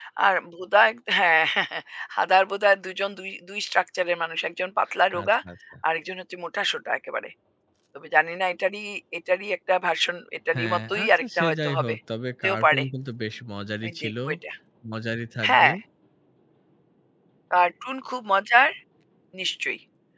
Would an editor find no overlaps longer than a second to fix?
No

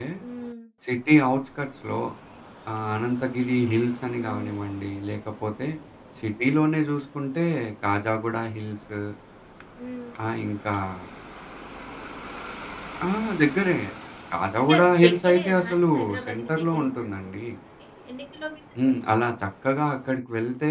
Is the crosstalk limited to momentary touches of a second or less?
No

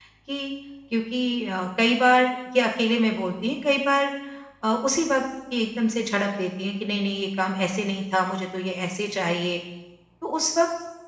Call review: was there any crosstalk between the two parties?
No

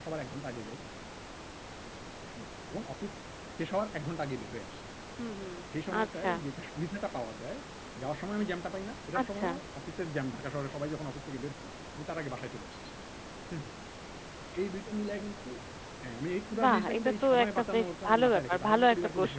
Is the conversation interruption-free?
No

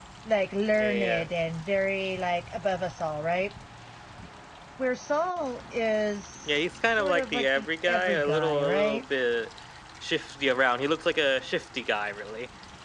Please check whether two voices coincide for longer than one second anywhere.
Yes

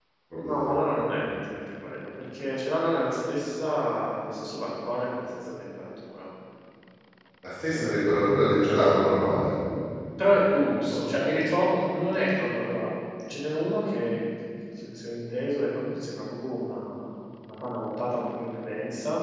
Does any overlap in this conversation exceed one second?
No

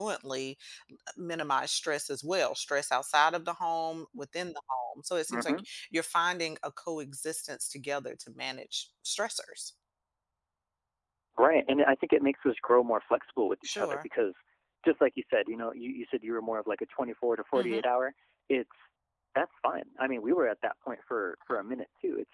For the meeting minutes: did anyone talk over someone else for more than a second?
No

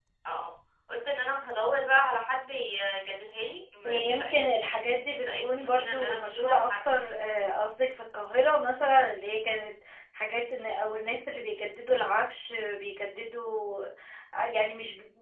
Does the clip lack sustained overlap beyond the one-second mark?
No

